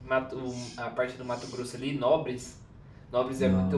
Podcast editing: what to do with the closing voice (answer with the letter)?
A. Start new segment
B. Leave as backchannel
B